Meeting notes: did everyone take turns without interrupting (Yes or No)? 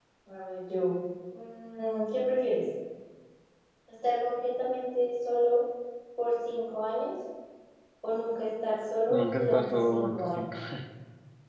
No